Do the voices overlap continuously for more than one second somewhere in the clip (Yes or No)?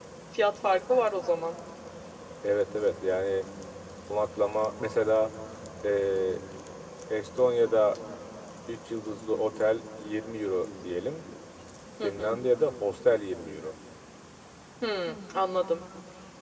No